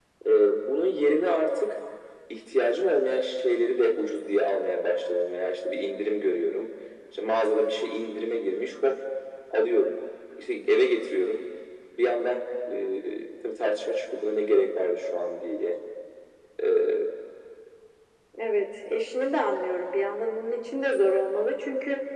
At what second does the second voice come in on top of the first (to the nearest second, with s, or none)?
none